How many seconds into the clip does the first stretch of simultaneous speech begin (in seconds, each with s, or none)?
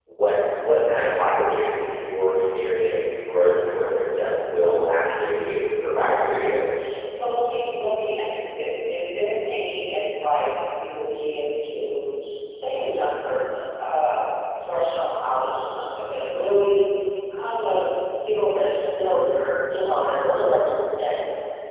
none